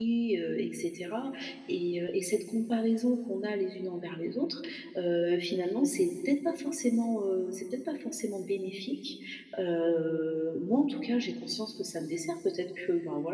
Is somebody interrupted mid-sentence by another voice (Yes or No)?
No